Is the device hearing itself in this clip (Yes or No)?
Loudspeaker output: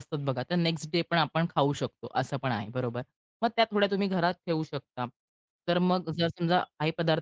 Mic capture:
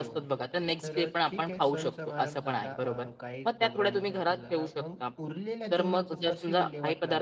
Yes